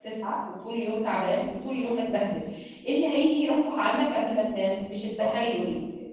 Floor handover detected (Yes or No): No